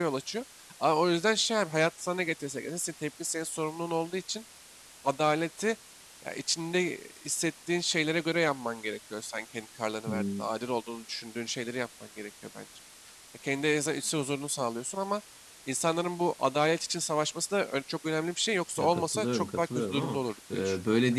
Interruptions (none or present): present